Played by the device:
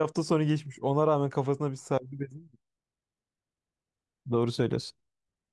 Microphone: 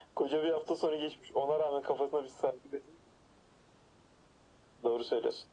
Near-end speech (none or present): none